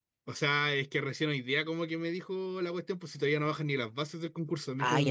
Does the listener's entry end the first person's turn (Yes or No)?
Yes